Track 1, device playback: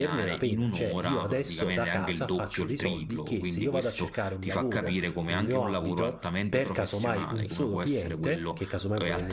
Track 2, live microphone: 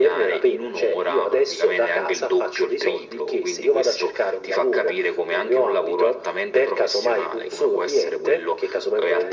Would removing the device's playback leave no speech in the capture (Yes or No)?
Yes